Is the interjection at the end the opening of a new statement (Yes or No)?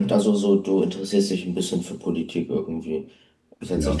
No